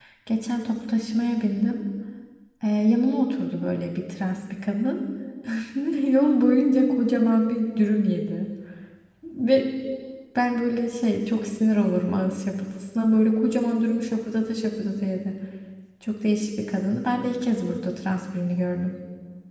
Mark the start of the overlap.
none

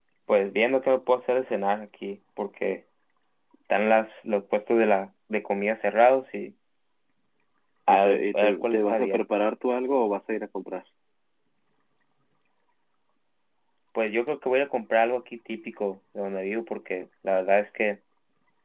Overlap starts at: 7.9 s

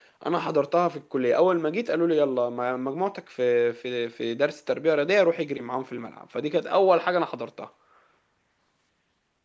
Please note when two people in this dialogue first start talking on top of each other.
none

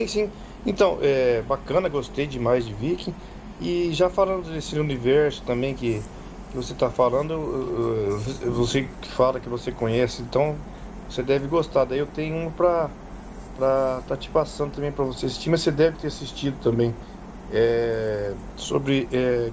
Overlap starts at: none

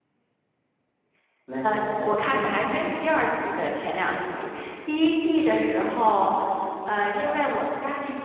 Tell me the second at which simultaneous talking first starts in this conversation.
1.6 s

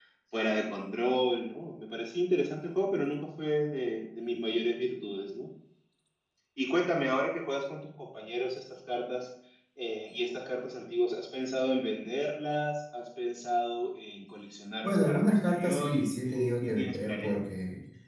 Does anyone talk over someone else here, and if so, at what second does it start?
14.8 s

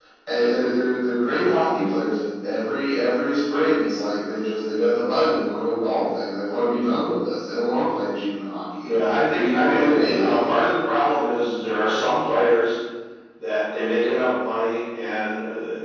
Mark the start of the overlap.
9.3 s

